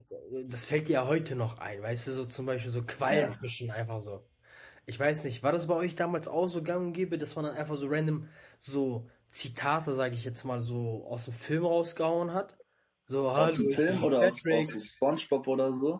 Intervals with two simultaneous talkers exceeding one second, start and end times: 13.4-14.7

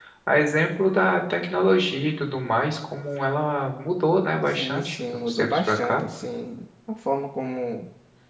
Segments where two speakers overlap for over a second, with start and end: 4.5-6.0

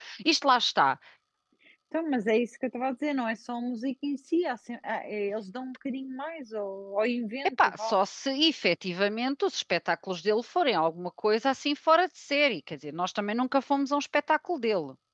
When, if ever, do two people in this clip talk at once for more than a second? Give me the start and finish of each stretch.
none

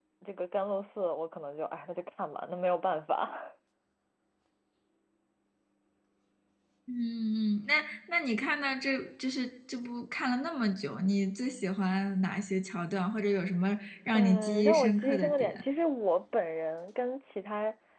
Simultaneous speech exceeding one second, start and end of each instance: 14.1-15.6

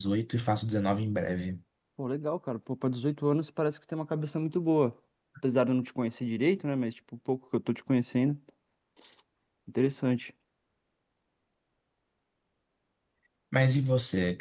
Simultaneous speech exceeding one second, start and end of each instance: none

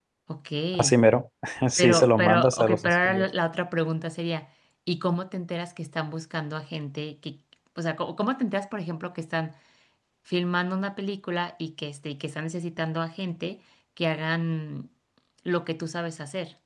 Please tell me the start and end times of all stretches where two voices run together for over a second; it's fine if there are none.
1.8-3.2

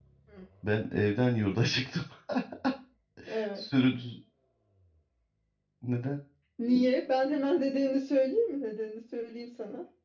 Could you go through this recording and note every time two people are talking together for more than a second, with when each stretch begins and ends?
none

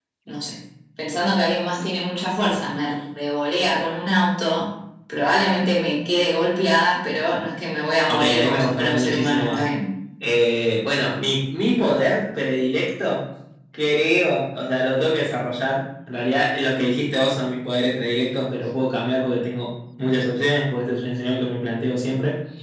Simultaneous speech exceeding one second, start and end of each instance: 8.1-9.6

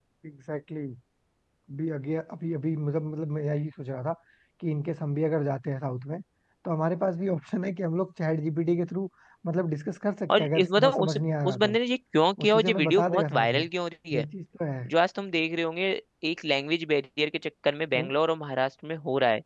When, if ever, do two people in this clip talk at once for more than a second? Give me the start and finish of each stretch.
10.4-11.8, 12.4-13.6

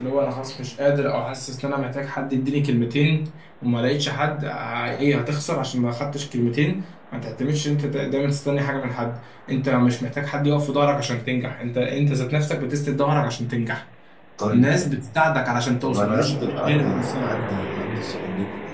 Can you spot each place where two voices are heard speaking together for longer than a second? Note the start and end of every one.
15.8-17.3

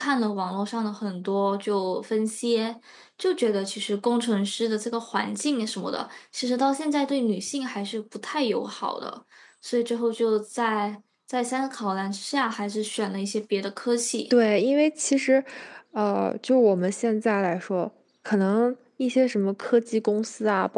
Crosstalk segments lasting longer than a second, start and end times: none

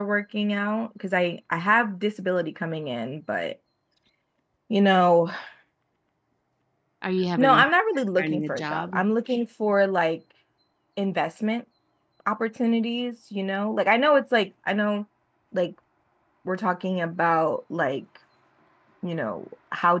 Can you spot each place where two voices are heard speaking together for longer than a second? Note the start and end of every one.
7.4-8.9

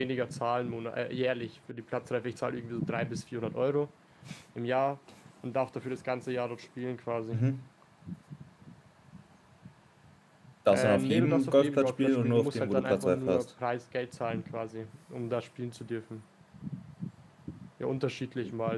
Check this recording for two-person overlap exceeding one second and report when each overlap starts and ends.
10.7-13.4

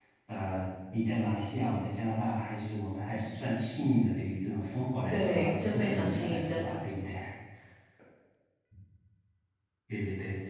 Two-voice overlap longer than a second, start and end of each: 5.1-6.8

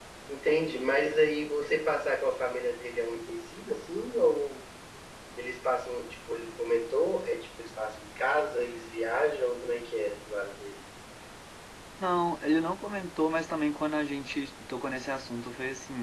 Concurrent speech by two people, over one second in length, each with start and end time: none

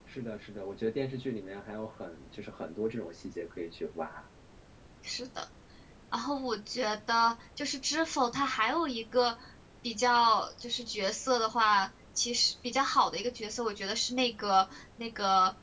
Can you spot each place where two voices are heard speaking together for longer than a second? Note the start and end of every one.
none

